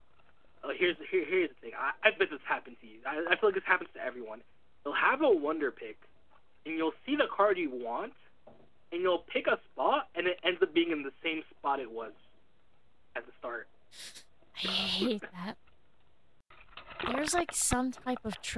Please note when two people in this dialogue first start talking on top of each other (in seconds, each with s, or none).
none